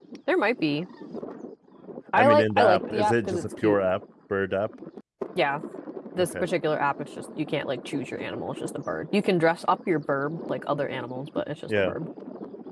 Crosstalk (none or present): present